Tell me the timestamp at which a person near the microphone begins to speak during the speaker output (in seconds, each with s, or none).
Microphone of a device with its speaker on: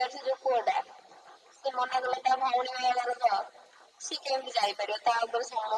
none